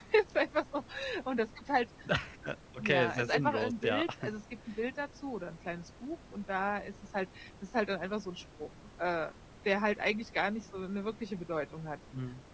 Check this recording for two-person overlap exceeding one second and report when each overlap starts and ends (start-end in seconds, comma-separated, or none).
2.8-4.0